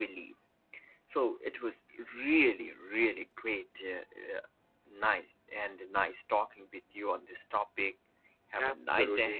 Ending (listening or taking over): taking over